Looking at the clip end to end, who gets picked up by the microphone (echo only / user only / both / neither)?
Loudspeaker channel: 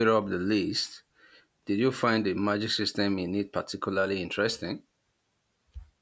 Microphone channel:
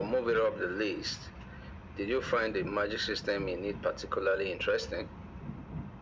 echo only